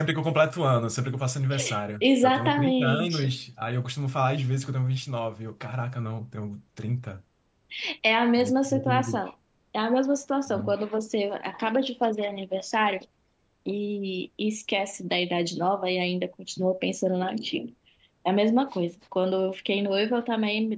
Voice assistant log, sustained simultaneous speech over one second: present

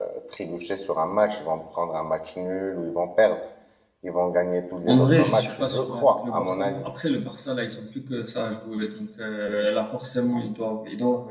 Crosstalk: present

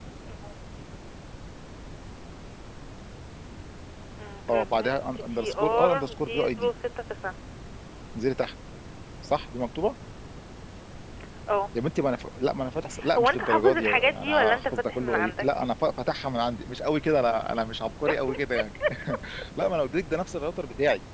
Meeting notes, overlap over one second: present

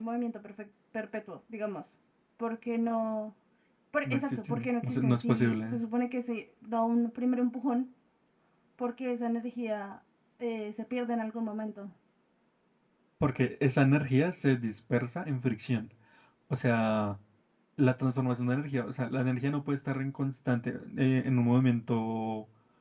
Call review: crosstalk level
present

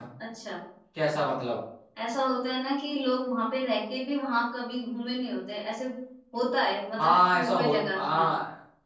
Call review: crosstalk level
present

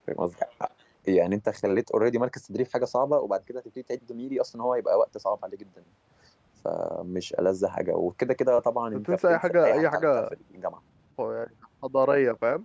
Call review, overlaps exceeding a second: present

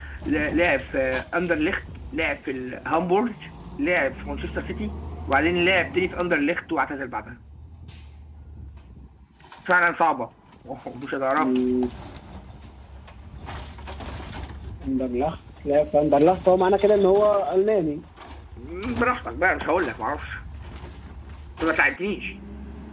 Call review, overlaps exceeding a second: none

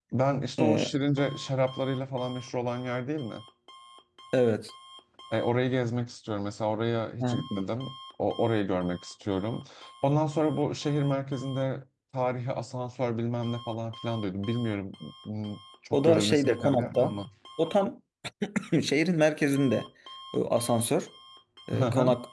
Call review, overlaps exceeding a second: present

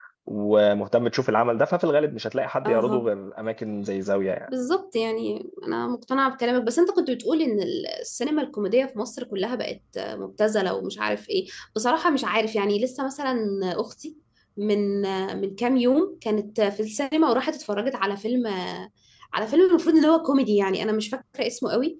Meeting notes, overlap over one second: none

